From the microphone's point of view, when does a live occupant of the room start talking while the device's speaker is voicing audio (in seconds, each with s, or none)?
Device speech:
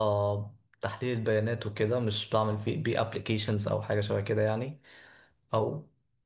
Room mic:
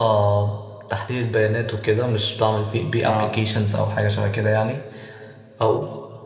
3.0 s